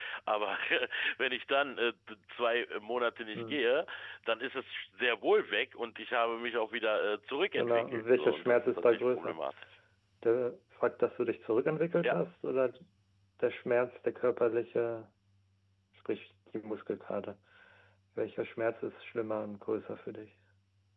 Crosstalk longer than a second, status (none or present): present